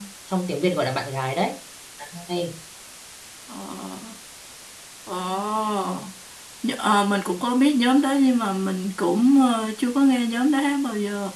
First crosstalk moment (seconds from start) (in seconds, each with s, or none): none